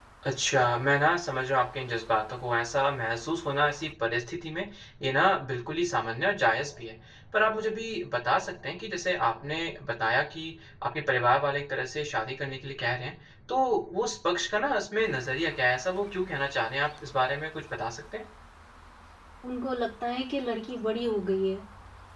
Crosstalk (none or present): none